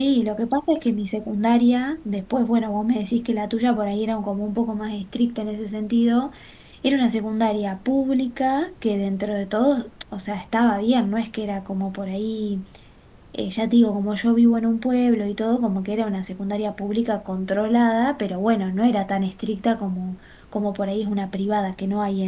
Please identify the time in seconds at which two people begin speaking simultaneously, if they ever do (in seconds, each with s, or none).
none